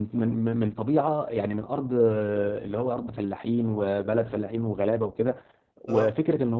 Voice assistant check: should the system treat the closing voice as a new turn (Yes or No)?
No